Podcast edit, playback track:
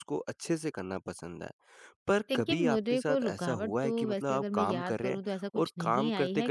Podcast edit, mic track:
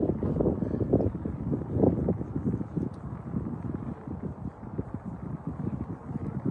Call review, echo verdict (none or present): none